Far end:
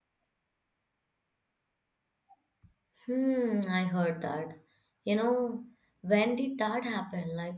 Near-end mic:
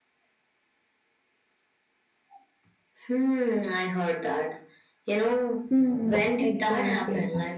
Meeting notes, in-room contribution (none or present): present